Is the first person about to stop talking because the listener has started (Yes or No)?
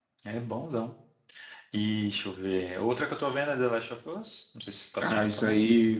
Yes